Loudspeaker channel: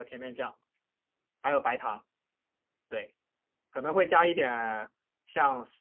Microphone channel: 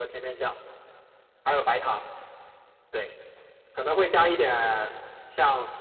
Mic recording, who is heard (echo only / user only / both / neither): echo only